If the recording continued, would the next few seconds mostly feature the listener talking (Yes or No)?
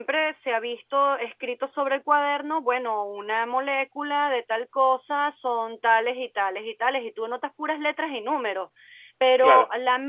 No